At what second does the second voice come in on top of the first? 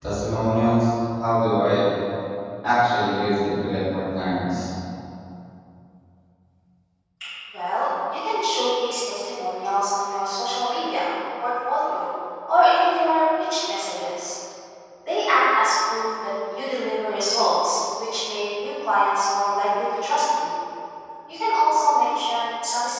none

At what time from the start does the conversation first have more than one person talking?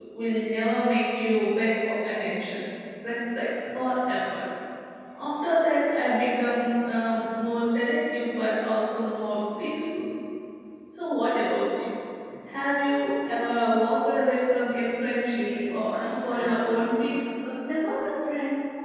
15 s

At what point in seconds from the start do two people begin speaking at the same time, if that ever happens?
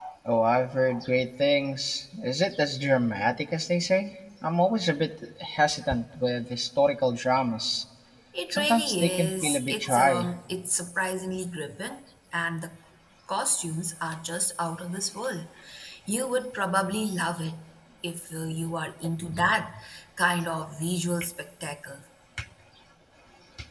9 s

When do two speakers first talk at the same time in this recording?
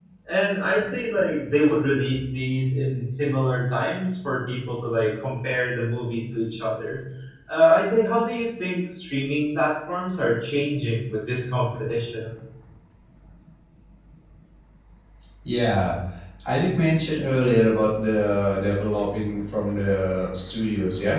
none

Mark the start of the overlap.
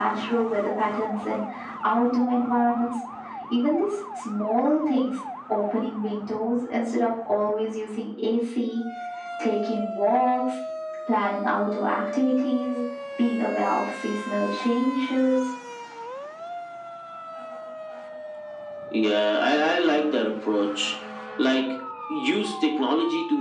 none

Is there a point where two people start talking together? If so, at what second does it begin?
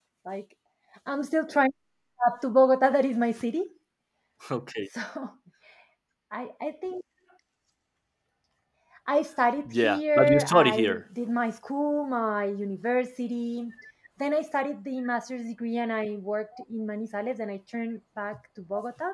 10 s

